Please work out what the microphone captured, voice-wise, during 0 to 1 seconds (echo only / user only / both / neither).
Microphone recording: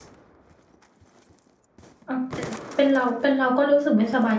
neither